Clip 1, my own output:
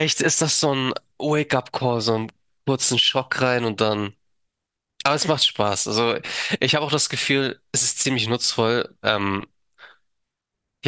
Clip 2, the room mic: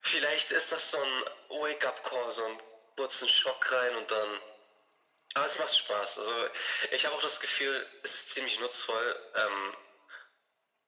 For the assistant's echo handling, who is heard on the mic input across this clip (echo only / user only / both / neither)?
echo only